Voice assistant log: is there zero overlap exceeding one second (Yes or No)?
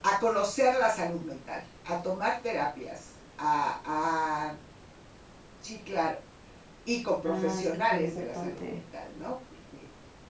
No